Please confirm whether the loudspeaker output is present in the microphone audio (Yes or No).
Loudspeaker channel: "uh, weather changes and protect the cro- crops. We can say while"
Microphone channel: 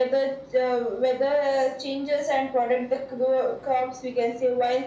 Yes